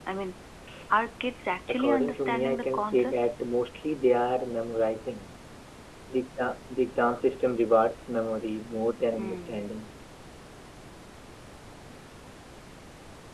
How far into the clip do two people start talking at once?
1.7 s

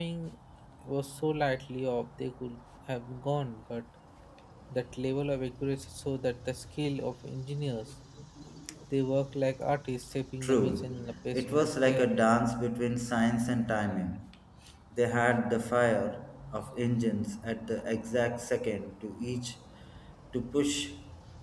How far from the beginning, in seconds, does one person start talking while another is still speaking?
10.4 s

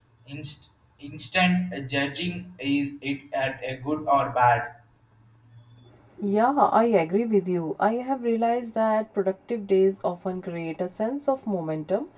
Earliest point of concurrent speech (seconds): none

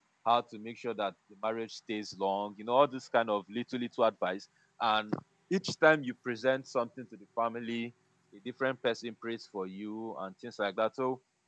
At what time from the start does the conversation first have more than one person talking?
none

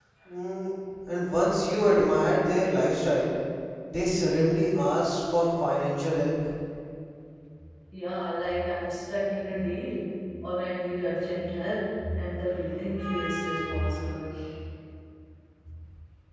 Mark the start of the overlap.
none

